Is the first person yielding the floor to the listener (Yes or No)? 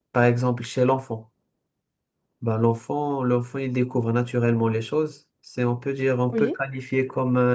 No